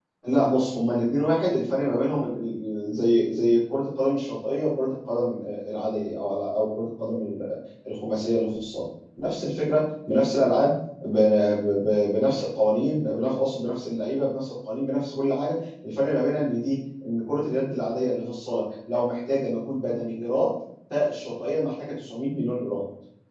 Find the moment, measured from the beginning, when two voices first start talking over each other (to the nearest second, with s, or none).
none